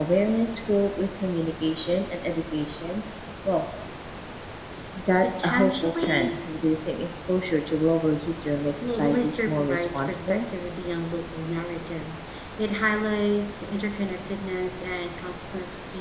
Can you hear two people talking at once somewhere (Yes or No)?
Yes